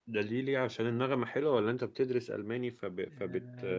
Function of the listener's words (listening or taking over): taking over